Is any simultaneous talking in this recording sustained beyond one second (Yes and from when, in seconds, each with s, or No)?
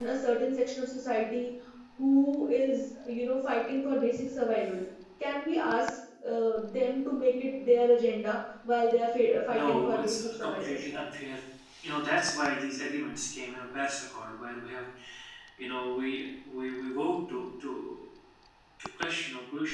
Yes, from 9.5 s